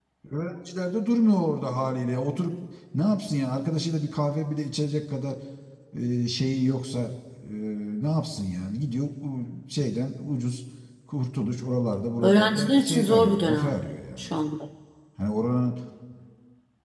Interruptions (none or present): present